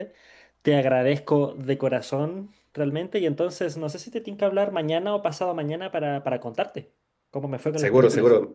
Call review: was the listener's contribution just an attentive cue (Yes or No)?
No